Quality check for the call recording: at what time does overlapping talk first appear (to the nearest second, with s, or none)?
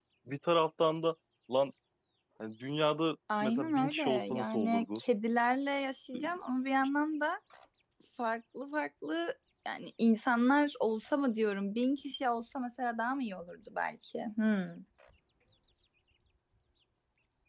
3 s